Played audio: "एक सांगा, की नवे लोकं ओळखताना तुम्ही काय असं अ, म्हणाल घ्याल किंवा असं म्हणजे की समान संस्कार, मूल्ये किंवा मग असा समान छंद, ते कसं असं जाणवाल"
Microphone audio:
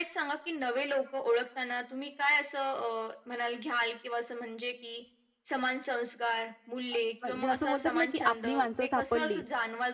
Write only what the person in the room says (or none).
अ, म्हणजे असं बोलतात ना, की आपली माणसं सापडली.